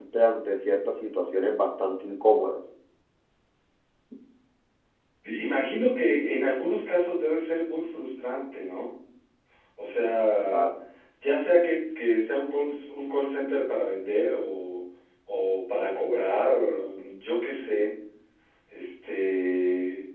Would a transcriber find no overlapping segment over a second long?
Yes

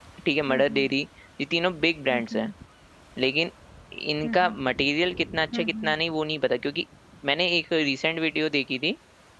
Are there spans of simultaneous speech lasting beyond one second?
No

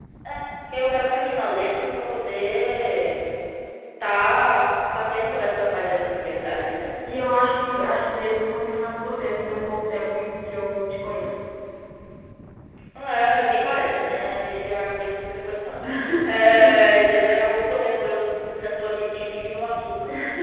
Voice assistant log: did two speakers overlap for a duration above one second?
No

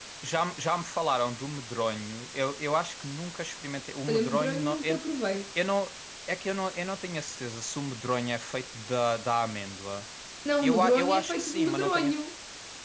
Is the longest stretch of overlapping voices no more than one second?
No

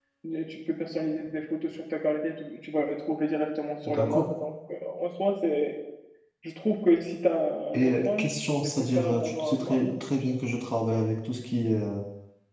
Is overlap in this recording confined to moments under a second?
No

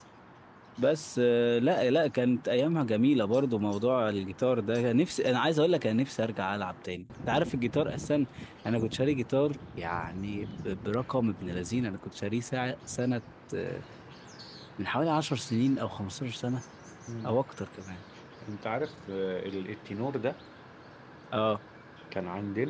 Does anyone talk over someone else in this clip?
No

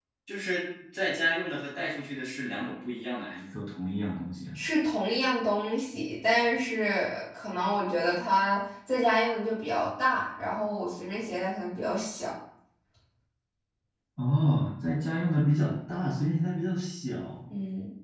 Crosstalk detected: No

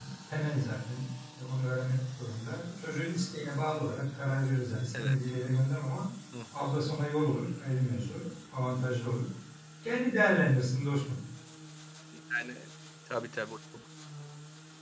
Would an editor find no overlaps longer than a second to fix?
Yes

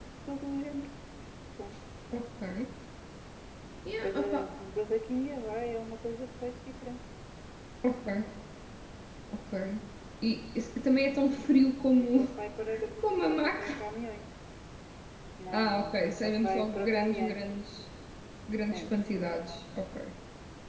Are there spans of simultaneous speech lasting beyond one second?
Yes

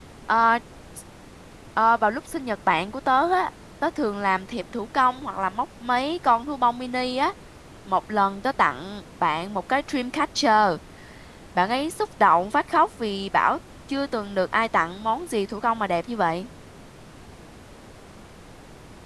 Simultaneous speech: No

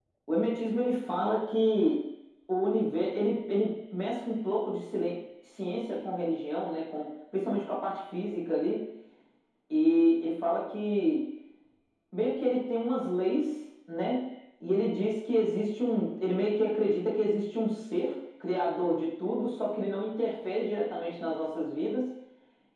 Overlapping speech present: No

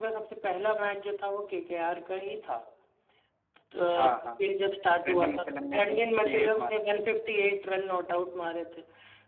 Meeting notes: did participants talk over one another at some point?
Yes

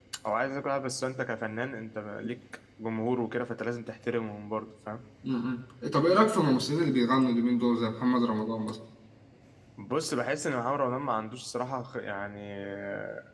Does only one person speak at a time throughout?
Yes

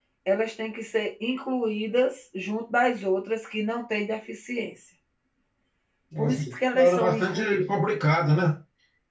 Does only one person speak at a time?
No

